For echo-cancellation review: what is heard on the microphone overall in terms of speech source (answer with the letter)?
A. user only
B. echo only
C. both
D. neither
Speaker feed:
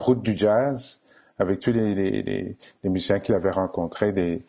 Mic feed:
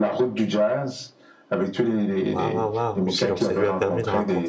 C